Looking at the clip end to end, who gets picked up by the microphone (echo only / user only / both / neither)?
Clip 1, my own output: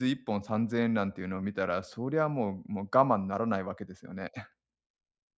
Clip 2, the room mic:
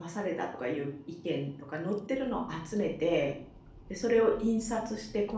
user only